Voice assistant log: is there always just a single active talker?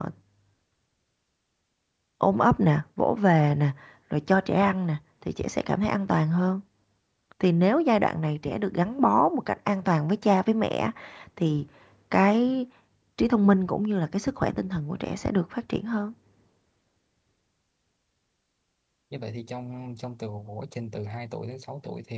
Yes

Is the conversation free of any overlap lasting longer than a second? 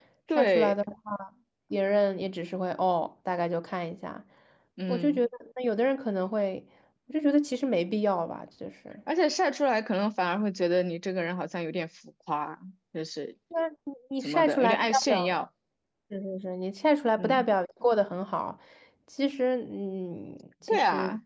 No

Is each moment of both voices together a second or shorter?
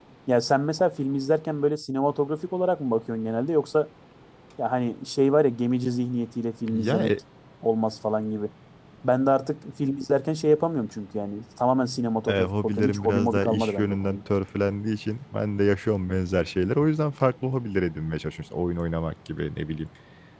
No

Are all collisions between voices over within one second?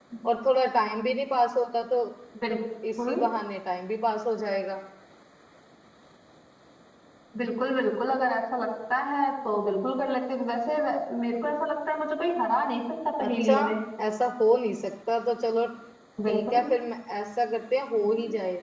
Yes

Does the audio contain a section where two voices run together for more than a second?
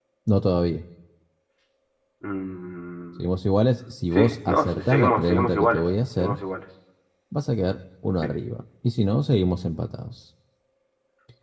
Yes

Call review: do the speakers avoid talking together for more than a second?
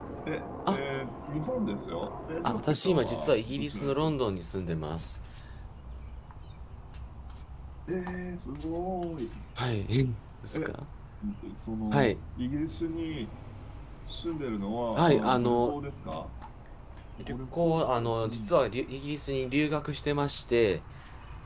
No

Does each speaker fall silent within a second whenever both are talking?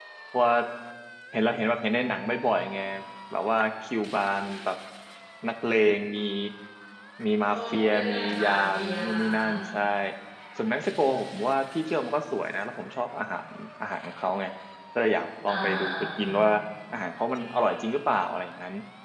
No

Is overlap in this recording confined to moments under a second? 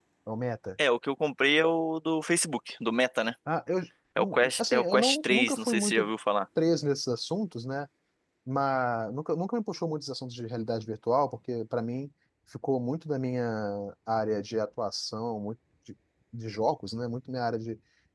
No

